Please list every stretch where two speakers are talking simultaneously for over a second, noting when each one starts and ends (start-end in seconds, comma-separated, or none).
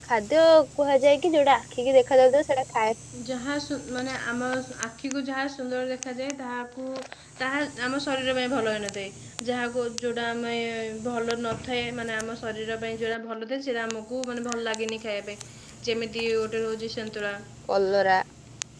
none